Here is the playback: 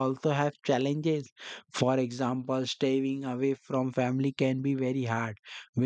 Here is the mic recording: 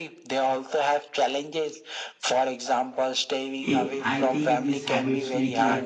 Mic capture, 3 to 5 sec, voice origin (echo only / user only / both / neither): both